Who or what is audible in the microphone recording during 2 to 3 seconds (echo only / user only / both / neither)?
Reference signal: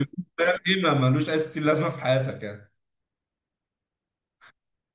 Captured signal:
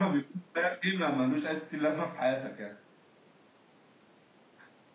echo only